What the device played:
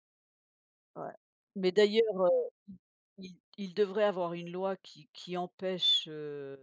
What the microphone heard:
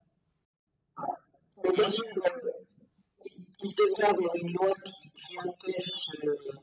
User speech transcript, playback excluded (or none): c'est vrai,